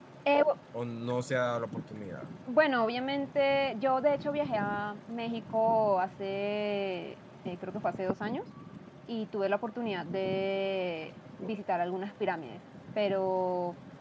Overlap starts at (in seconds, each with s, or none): none